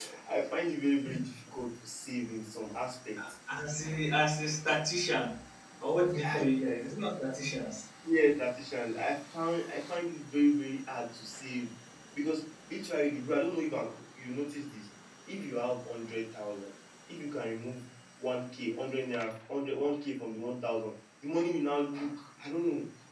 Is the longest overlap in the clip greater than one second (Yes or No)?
No